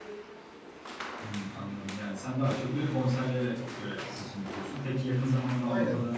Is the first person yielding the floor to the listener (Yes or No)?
No